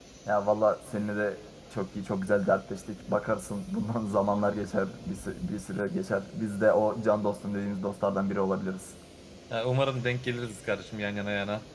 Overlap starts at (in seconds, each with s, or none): none